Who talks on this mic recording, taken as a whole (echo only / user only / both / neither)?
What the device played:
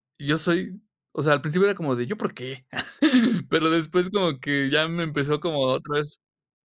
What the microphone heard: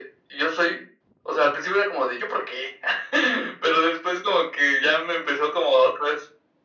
echo only